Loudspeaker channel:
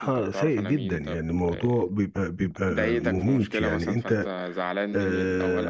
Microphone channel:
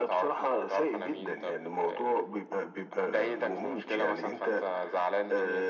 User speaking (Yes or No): No